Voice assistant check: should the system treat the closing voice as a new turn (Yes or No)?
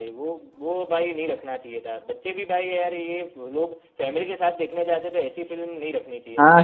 Yes